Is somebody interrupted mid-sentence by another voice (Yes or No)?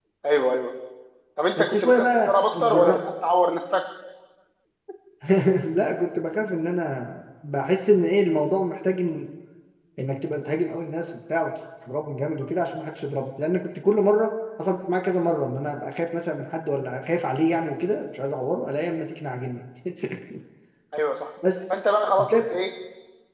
Yes